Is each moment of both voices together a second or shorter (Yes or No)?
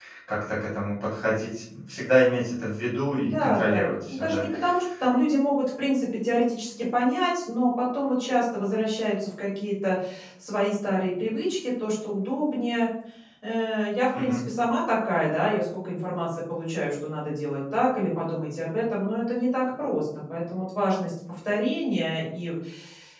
No